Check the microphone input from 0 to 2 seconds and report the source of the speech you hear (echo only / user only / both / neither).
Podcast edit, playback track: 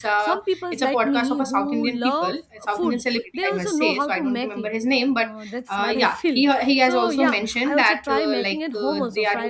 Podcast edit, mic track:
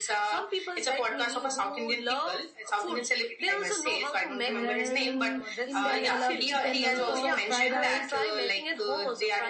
echo only